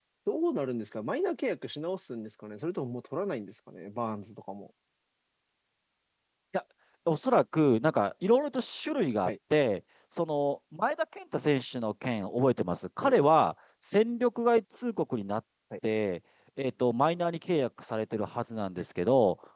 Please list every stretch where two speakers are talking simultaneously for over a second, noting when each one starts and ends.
none

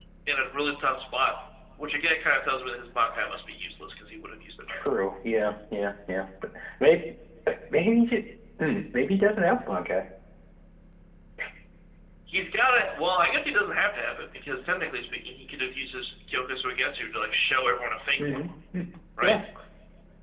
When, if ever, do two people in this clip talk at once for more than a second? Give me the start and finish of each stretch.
none

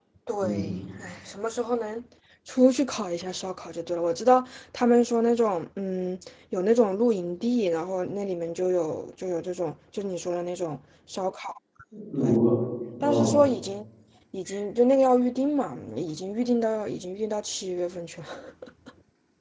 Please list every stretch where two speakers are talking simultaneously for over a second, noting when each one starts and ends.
none

